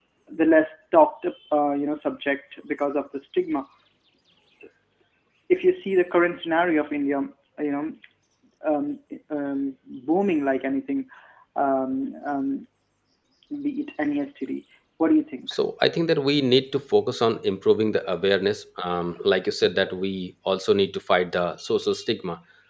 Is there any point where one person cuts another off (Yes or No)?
No